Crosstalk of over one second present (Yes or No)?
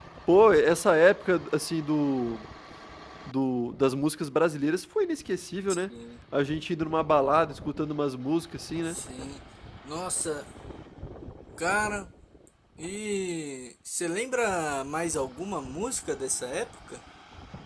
No